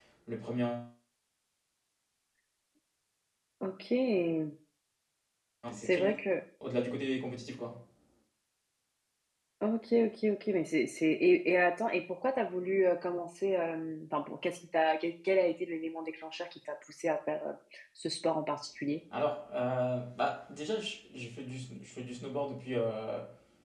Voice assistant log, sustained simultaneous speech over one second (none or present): none